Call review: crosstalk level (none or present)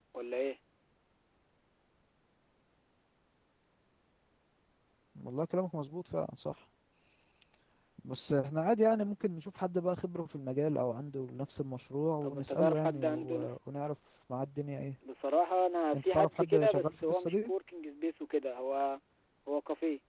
present